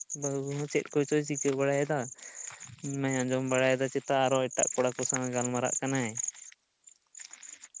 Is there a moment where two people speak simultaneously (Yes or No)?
No